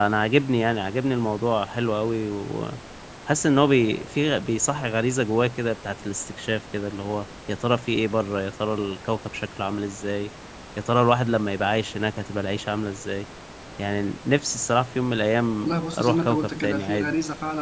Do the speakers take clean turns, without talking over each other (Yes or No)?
No